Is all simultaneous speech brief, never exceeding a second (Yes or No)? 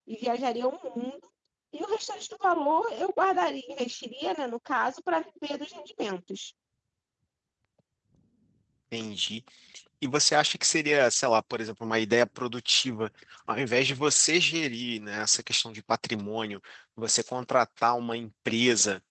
Yes